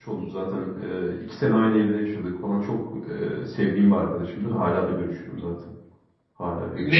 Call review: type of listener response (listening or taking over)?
taking over